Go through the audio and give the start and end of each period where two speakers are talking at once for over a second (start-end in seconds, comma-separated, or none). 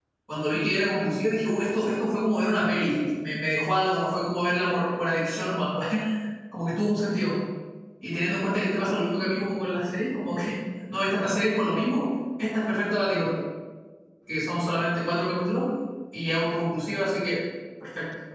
none